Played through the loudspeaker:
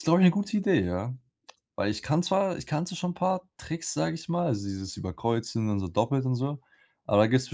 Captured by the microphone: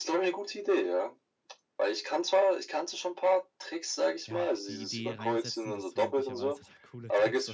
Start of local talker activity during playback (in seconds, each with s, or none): 4.3 s